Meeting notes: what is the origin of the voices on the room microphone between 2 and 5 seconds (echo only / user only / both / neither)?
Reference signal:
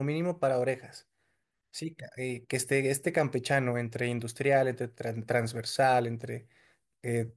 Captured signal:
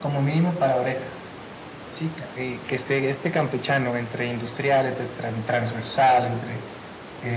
echo only